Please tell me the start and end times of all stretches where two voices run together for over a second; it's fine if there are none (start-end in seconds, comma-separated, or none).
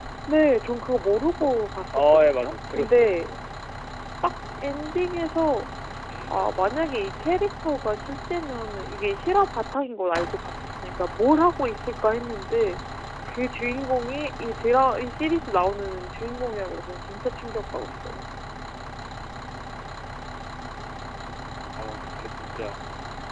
1.9-3.3